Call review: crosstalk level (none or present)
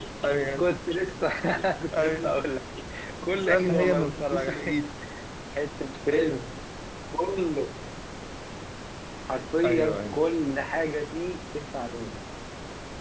present